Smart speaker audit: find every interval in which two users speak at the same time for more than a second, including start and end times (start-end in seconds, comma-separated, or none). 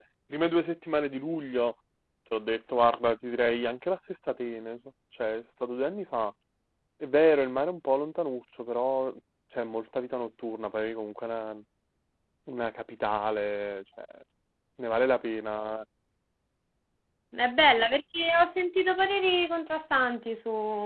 none